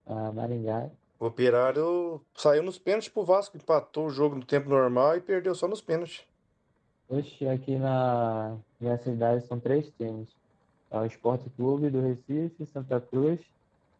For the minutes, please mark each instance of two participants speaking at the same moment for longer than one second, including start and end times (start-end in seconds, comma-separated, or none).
none